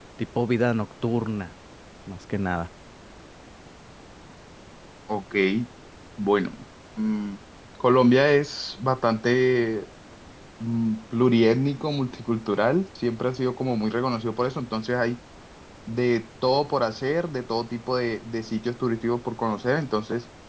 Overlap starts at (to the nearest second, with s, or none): none